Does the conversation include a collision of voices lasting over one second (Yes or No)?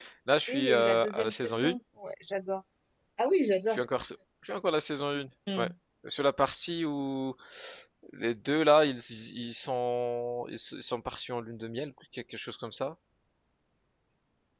Yes